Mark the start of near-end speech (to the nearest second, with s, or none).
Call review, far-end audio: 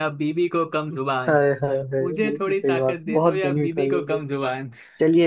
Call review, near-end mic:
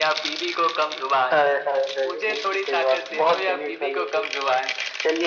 none